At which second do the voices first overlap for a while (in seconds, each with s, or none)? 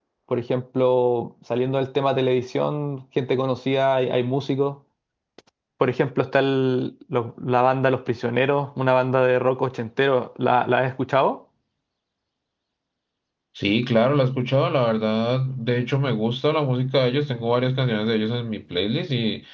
none